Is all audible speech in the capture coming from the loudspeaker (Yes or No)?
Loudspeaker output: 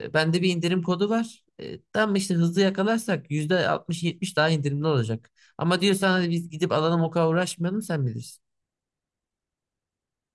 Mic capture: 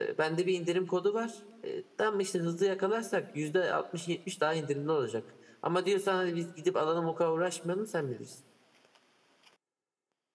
Yes